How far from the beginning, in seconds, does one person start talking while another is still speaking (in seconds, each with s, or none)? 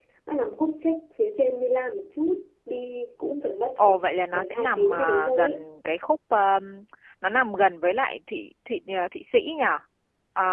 3.8 s